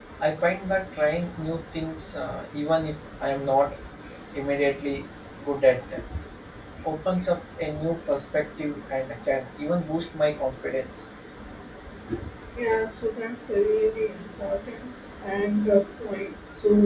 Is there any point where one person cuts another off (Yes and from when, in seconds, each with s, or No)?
No